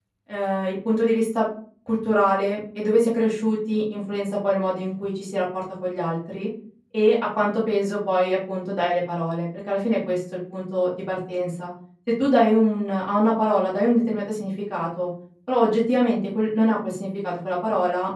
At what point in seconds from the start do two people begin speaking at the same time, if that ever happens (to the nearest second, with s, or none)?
none